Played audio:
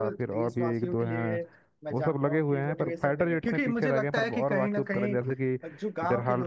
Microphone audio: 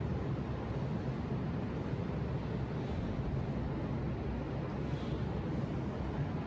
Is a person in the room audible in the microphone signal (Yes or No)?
No